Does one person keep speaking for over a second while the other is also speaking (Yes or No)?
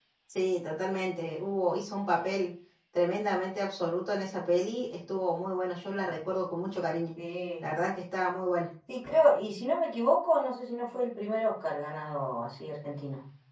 No